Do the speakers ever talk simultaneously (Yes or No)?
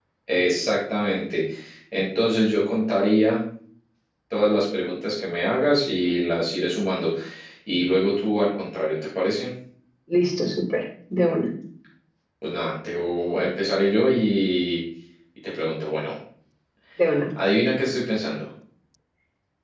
No